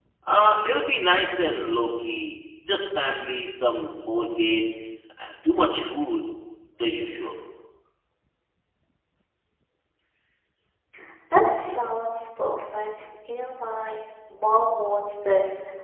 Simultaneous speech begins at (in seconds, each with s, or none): none